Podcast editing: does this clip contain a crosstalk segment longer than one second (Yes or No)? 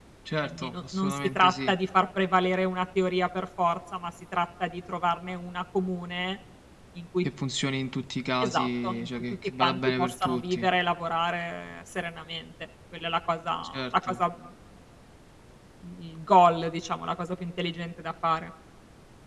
Yes